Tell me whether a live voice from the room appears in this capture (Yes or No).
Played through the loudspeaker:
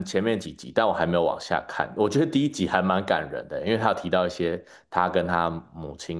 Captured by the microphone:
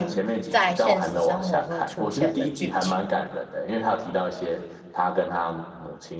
Yes